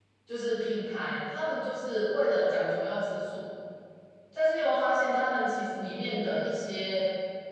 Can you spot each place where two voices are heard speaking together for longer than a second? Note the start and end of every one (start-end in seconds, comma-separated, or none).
none